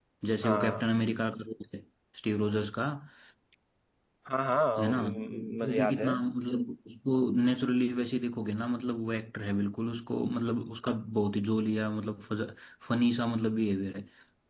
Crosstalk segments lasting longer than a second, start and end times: 4.8-6.1

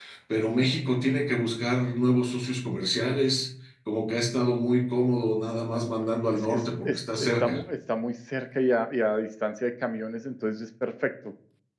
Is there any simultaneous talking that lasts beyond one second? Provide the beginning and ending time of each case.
6.3-7.6

